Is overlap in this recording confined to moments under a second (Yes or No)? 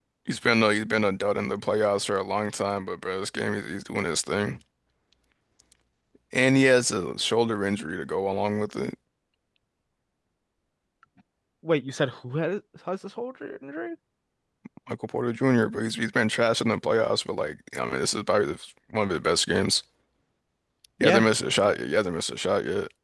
Yes